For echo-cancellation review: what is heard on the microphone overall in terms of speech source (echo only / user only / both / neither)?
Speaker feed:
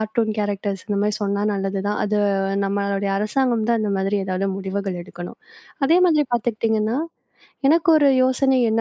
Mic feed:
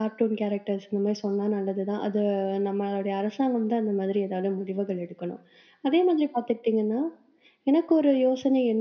echo only